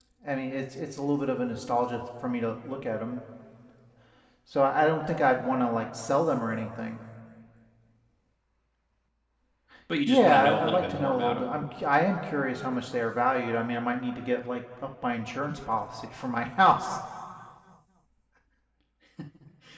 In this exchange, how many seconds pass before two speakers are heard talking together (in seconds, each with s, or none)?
10.1 s